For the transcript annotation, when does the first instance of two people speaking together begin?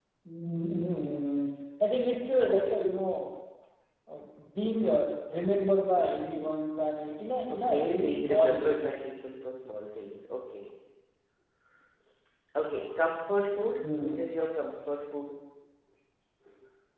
7.5 s

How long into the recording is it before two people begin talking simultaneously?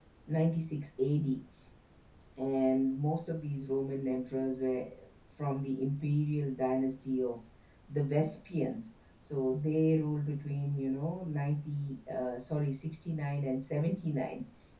none

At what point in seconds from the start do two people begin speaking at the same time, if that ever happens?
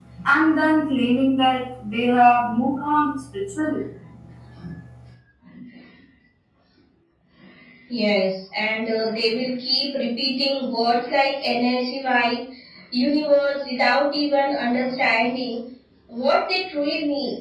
none

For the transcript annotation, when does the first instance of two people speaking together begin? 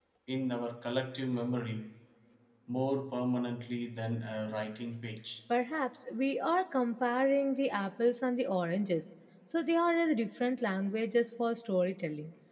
none

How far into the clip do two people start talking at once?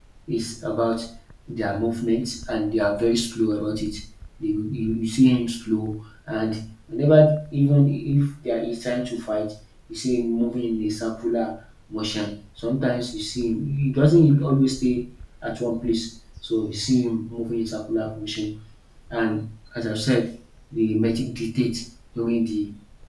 none

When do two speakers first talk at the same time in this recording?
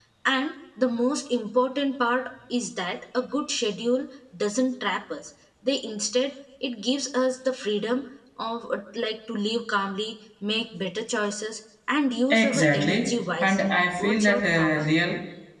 12.3 s

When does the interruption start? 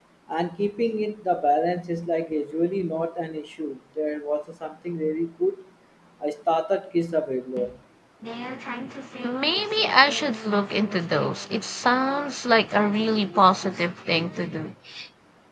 none

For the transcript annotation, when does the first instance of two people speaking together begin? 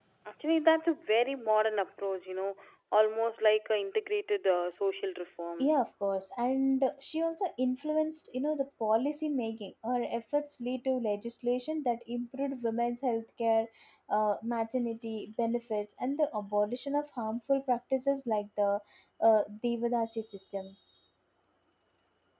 none

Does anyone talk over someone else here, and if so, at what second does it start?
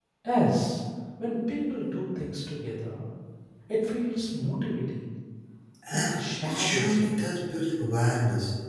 5.9 s

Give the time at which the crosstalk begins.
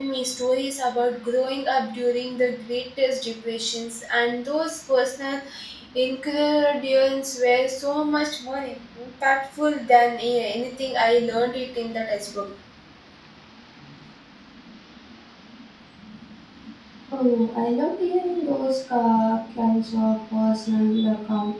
none

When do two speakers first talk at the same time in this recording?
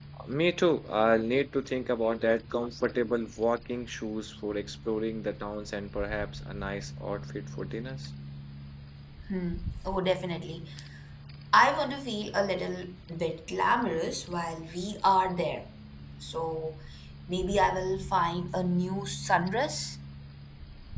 none

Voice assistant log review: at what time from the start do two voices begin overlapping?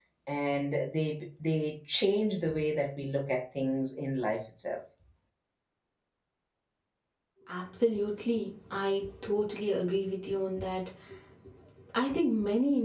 none

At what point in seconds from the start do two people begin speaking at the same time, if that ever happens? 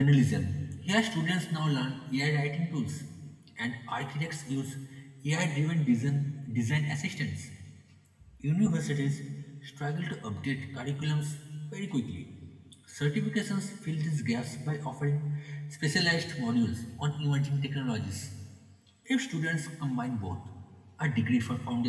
none

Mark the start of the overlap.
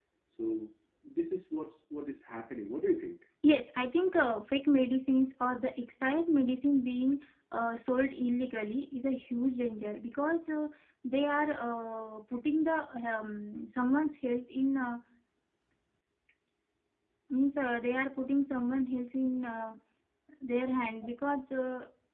none

